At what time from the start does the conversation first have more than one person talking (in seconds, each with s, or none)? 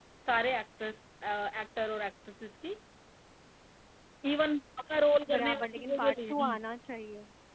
5.3 s